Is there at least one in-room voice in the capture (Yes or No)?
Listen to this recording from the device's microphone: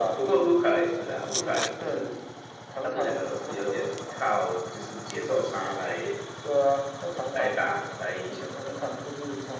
No